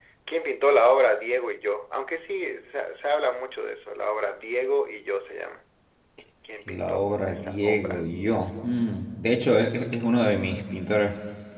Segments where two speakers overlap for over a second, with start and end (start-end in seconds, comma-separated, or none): 6.7-8.1